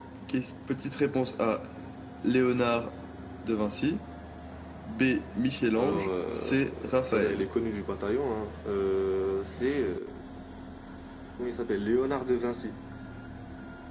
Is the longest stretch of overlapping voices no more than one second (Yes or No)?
No